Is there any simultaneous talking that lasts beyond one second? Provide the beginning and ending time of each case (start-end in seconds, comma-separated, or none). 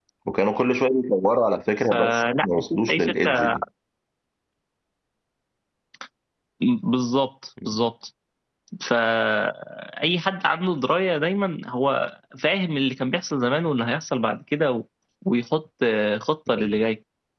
1.9-3.5